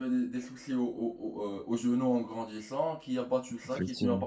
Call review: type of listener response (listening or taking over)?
listening